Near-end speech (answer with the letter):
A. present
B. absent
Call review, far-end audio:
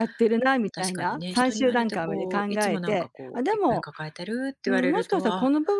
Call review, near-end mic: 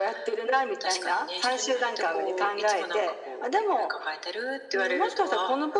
B